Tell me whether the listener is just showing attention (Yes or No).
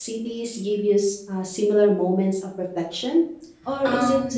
No